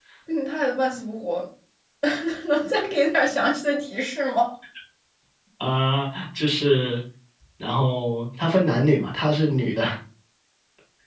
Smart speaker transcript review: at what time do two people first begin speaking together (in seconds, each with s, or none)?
none